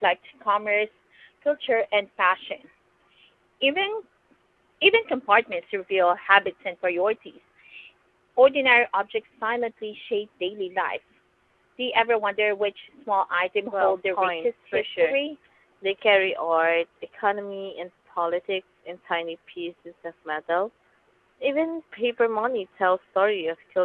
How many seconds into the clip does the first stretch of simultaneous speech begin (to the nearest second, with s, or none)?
14 s